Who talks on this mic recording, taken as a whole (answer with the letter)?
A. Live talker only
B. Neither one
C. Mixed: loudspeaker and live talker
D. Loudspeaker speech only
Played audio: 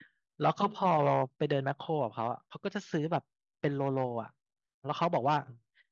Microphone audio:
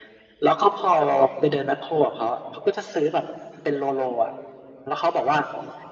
D